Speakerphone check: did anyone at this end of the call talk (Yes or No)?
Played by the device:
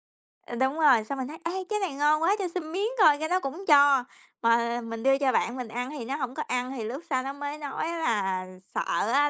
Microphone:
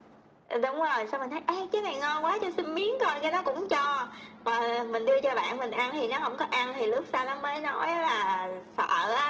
No